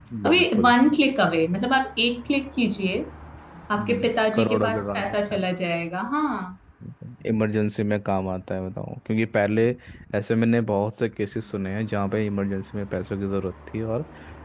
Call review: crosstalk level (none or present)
present